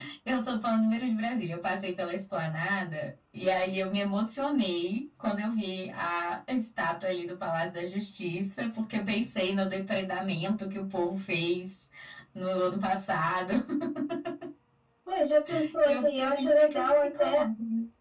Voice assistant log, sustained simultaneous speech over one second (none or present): present